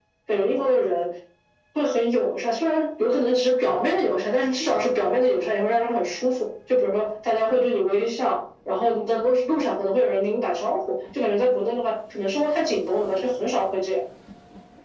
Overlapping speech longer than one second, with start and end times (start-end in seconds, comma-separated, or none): none